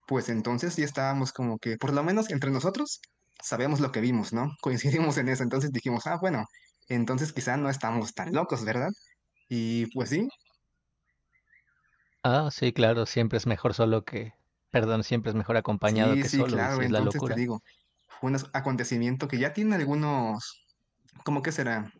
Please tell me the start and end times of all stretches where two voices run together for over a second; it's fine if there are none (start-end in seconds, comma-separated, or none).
15.9-17.4